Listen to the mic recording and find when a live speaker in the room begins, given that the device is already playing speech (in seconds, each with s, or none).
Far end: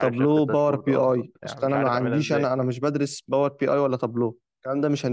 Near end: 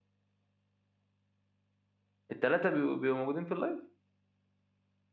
2.3 s